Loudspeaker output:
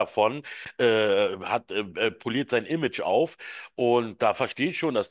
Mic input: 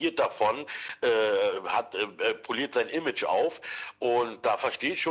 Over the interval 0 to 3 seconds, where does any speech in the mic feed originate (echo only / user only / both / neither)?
echo only